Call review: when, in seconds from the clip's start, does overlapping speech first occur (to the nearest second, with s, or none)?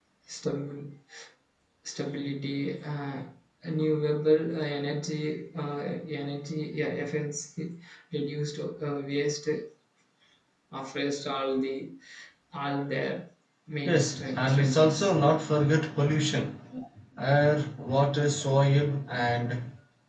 14 s